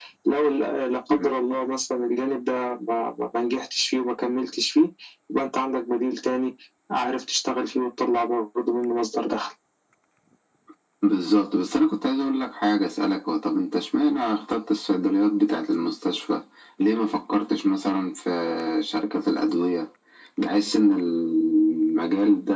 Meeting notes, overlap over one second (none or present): none